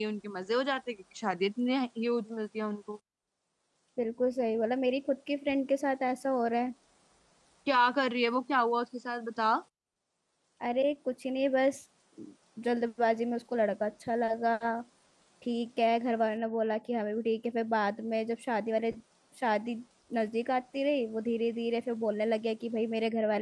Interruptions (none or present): none